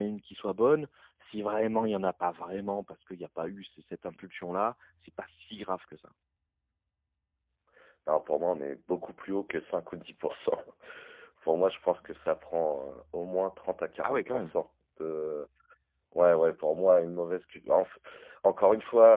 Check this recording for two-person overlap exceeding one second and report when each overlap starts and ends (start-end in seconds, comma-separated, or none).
none